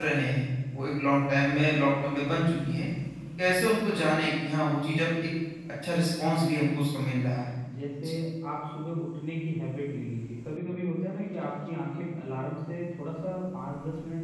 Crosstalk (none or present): none